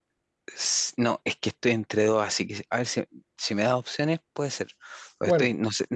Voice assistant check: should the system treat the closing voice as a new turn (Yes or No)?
No